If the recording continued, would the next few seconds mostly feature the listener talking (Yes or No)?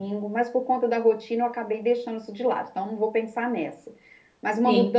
No